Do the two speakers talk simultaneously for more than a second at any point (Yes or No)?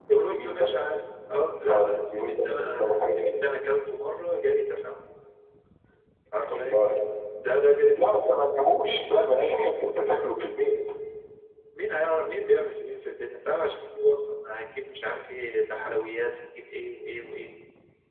Yes